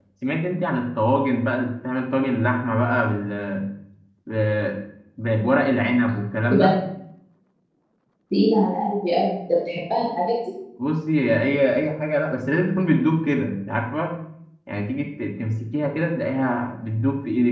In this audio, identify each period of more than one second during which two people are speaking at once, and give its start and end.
none

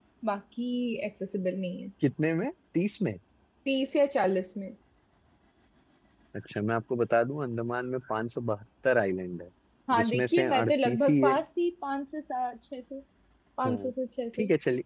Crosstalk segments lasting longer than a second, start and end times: 9.9-11.3

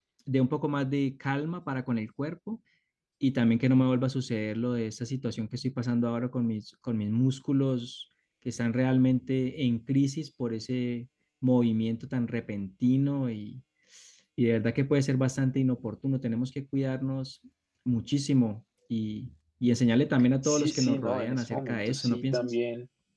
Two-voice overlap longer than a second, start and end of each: 20.4-22.5

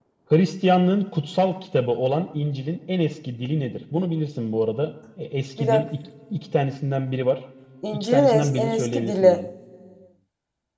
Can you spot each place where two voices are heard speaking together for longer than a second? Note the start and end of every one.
7.9-9.4

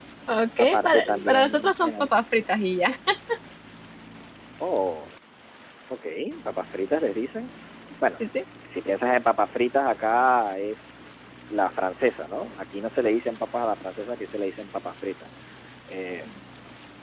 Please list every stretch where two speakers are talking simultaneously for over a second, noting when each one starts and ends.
0.6-2.1

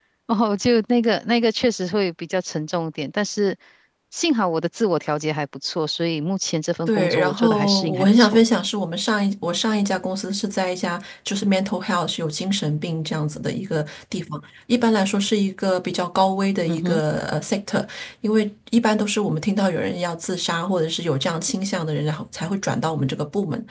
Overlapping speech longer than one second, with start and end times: 6.9-8.4

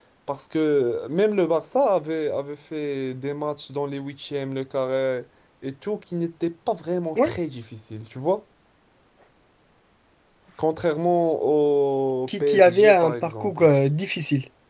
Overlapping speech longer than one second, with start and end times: 12.3-13.6

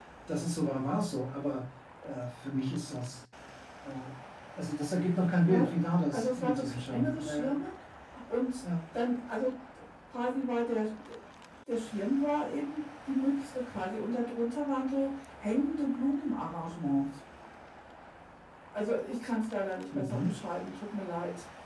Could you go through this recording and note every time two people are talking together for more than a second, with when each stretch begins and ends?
6.1-7.6

